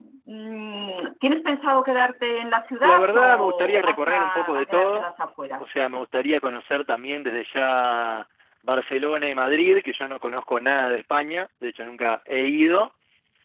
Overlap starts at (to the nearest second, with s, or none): 3 s